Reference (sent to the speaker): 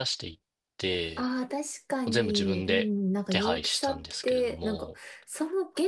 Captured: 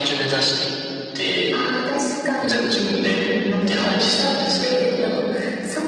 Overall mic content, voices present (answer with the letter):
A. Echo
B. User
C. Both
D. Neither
A